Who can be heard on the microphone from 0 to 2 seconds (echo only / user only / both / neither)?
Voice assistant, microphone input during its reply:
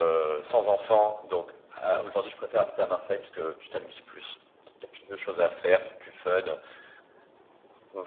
echo only